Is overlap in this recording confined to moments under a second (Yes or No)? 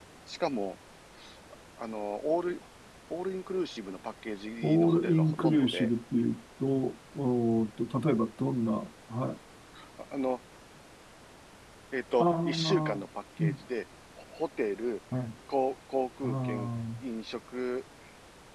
No